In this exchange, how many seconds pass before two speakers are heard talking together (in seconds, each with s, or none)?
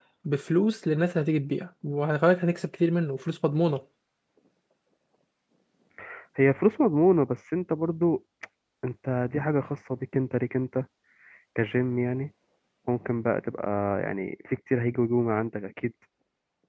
none